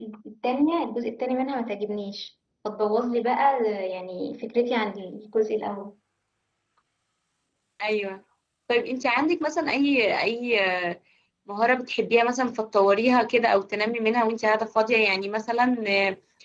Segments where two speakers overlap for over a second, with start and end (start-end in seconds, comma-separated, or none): none